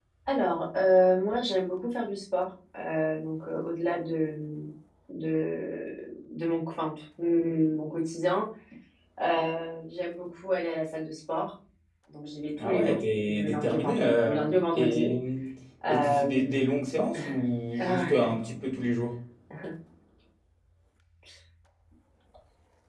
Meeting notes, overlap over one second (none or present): present